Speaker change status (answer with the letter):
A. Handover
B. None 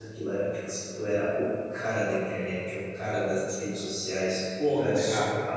B